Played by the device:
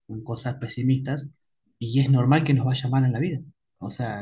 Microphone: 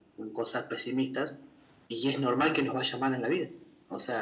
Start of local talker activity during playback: none

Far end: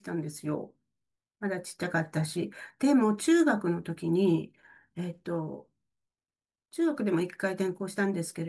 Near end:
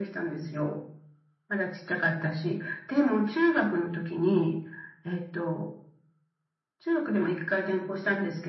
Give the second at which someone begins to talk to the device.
none

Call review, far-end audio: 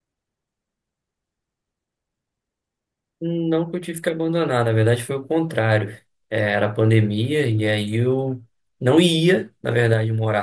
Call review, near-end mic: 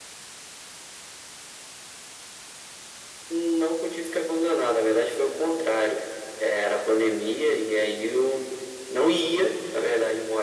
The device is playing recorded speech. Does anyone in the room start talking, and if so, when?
none

